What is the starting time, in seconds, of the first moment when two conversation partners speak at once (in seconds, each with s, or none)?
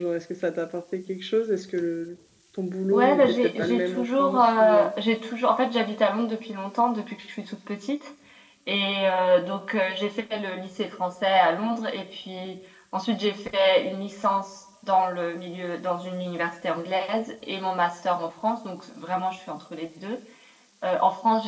2.9 s